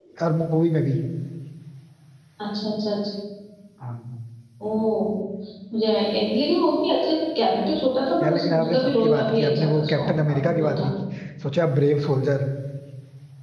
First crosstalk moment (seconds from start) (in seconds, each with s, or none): 8.2 s